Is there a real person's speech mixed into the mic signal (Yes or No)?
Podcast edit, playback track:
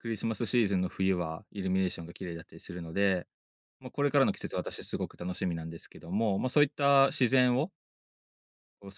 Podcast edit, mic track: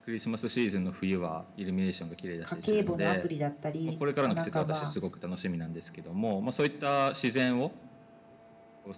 Yes